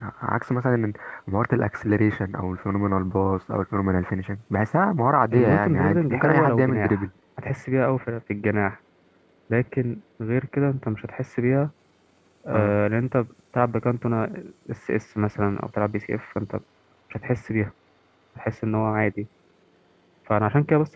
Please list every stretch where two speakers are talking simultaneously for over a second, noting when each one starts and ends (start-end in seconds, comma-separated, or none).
5.3-7.0